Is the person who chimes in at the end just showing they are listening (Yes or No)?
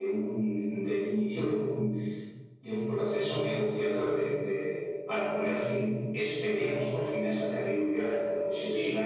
No